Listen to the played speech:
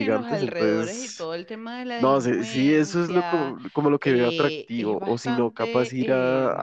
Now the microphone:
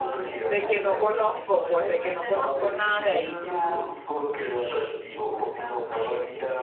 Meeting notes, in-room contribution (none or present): present